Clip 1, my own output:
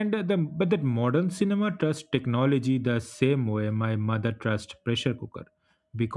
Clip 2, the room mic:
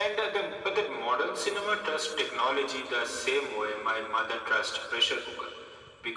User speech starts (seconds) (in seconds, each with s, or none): none